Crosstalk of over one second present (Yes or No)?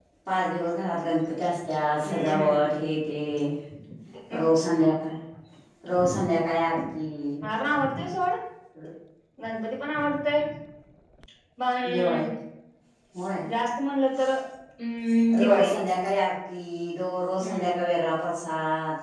No